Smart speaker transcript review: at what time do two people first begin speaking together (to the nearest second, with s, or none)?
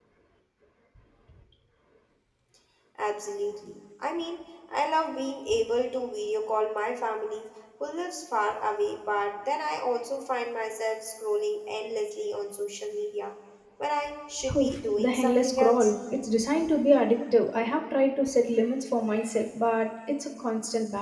15 s